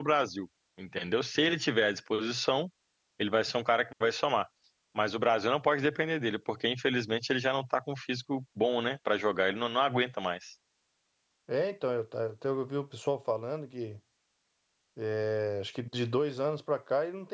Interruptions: none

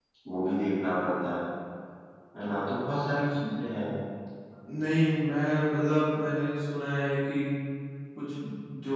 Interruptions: none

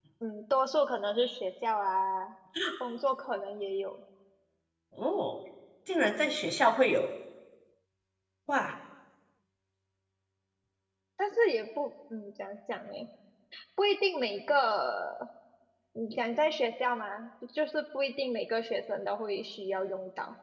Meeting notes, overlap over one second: none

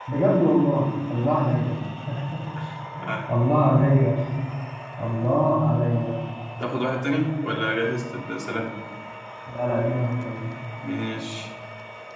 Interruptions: none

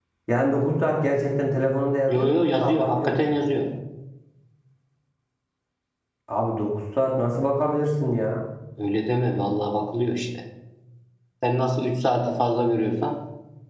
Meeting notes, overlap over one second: present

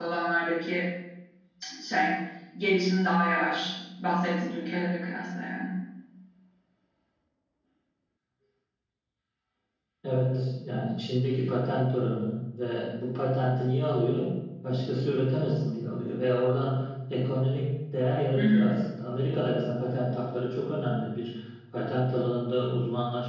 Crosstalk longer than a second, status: none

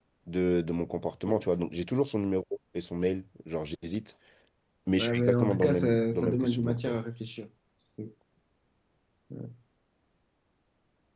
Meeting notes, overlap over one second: present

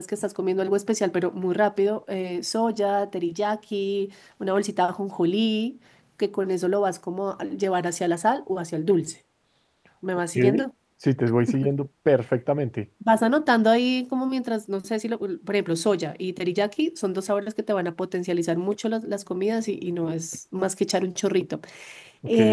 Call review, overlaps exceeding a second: none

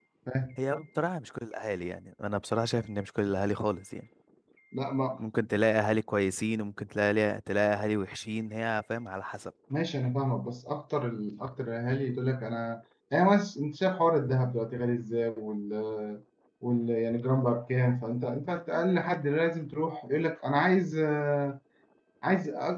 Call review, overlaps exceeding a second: none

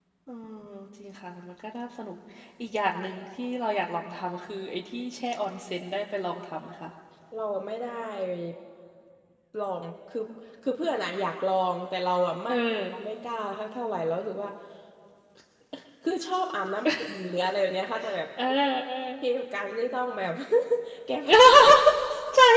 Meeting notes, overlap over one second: none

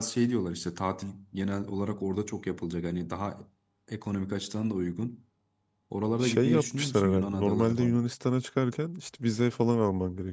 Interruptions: present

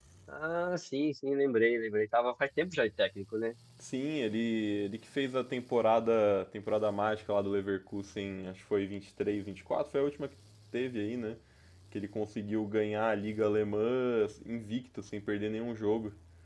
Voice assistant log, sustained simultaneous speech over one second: none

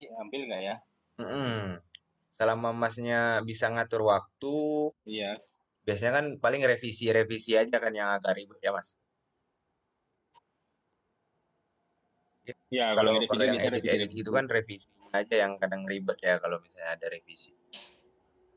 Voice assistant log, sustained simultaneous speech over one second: present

